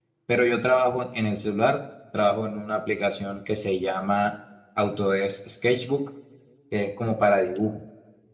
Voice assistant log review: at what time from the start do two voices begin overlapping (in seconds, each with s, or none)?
none